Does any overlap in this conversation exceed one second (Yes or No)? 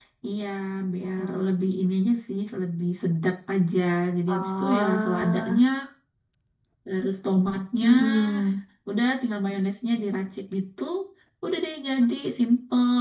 Yes